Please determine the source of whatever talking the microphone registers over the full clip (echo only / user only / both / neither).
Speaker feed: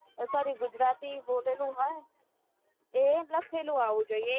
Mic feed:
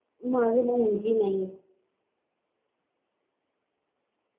user only